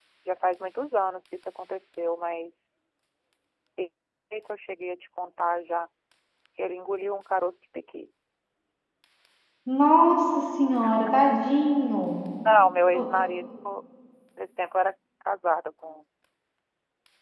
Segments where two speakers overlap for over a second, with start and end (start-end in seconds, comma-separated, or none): none